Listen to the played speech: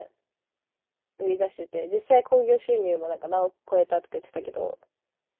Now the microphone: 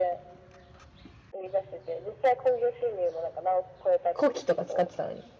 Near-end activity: present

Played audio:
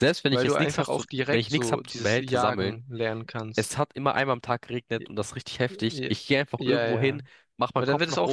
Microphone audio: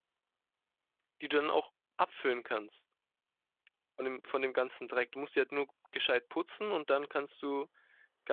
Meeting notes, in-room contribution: present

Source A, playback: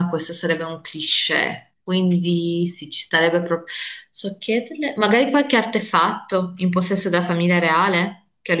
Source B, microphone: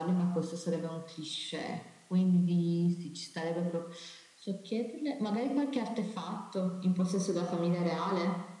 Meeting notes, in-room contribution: none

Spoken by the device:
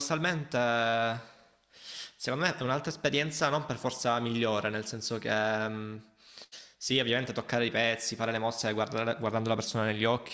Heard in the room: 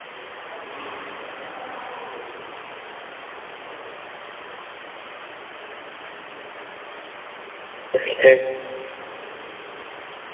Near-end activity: present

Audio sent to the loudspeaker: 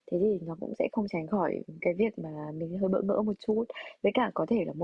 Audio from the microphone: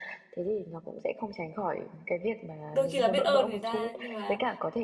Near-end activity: present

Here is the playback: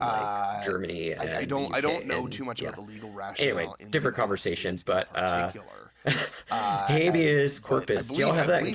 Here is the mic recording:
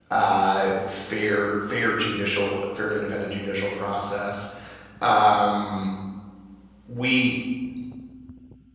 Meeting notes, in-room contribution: present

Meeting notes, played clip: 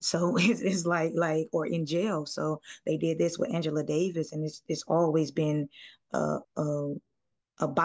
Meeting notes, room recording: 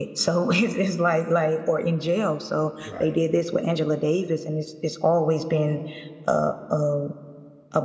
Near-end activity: present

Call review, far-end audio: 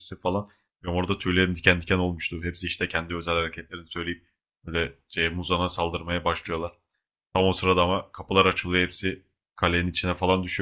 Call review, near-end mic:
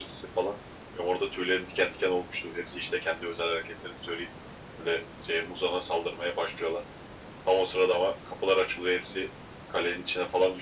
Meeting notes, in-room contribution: none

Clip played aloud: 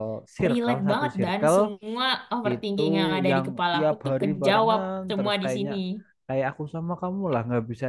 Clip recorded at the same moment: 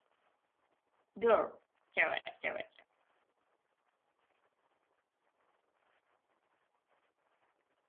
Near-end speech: present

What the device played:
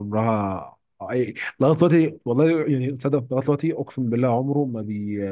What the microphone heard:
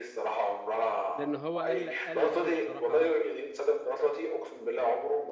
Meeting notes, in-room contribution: present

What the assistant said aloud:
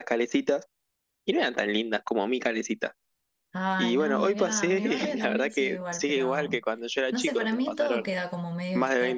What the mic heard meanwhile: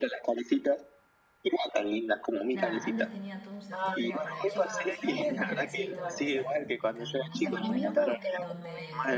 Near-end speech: present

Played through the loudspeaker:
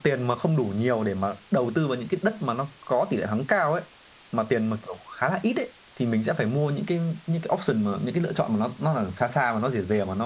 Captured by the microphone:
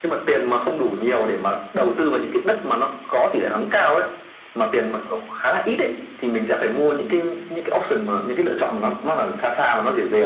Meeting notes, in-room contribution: none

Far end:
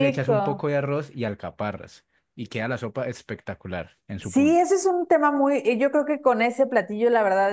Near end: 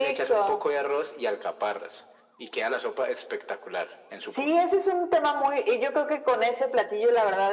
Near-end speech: none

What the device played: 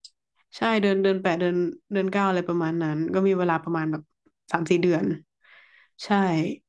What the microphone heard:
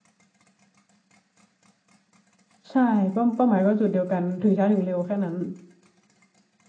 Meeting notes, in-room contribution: present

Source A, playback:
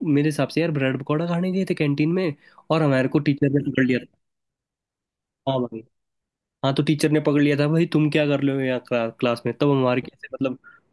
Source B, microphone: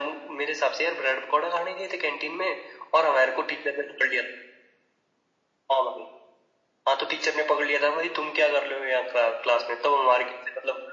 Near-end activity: none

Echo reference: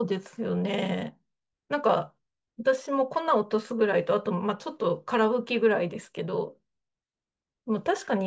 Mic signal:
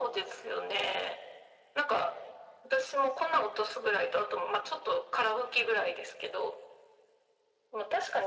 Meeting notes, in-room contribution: none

